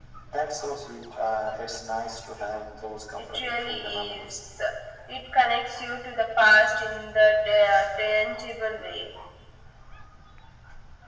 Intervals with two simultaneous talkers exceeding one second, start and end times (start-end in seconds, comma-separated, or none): 3.2-4.4